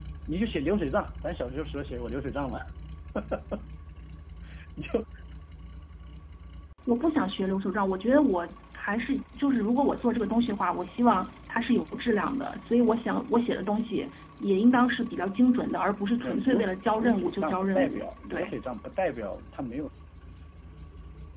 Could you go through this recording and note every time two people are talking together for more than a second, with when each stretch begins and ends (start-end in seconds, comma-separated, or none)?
16.2-18.5